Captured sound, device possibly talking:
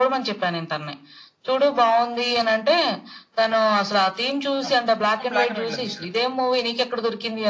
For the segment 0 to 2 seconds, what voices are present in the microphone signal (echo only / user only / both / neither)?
echo only